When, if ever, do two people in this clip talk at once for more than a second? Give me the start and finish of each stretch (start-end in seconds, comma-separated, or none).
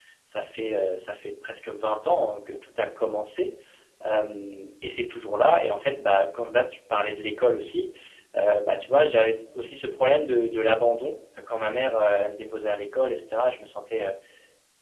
none